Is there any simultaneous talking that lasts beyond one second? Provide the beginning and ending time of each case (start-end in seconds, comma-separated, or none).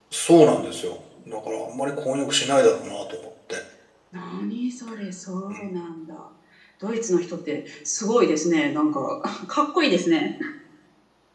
none